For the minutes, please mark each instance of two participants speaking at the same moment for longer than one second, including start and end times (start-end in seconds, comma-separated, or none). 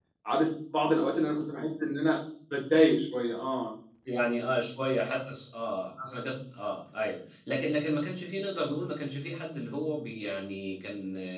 none